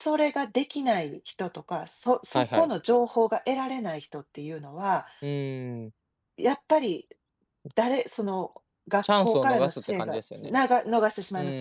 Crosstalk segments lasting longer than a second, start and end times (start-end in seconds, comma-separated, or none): 9.0-10.6